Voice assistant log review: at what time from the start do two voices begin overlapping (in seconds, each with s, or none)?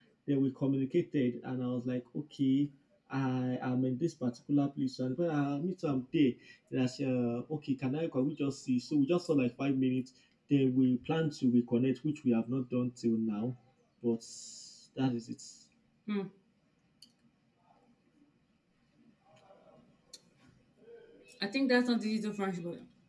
none